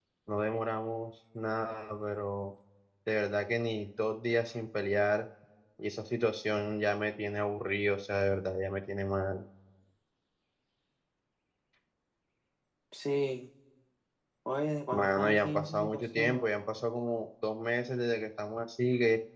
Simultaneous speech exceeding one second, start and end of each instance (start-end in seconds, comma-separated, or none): 14.9-16.6